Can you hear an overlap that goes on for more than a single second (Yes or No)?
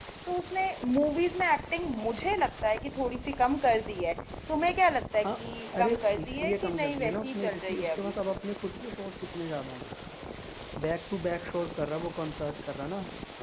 Yes